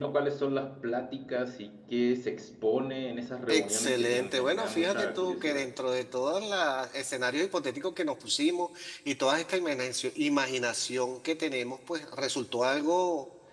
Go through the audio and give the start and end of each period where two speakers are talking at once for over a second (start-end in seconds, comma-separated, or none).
3.5-5.7